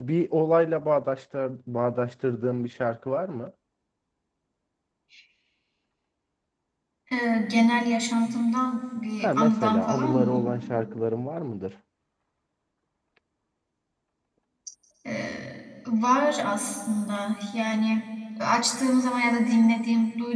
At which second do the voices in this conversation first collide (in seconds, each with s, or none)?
9.2 s